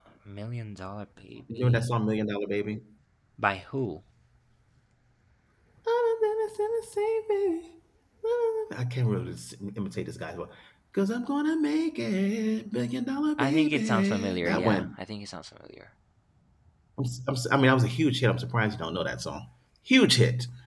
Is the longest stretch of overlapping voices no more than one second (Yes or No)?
No